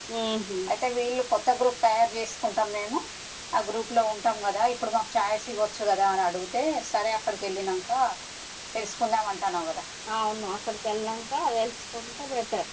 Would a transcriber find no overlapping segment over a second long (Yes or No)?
Yes